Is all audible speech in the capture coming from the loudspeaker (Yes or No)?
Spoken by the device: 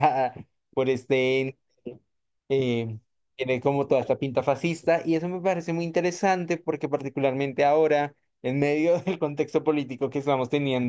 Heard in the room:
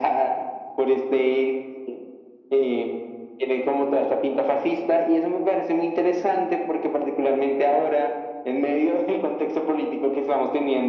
Yes